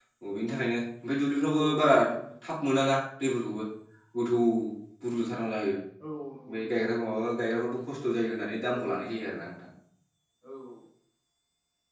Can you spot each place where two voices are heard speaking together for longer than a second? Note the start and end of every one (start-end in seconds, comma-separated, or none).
none